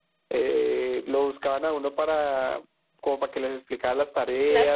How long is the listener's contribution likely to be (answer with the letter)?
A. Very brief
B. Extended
A